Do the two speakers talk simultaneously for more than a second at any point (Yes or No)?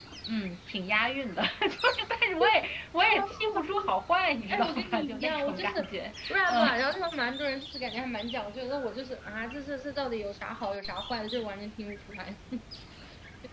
Yes